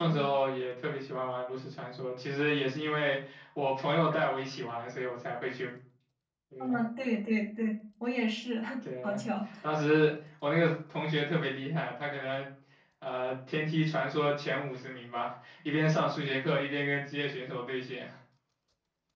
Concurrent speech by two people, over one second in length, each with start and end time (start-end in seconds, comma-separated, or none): none